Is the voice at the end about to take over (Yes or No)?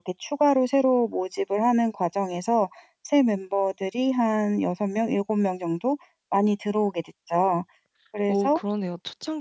Yes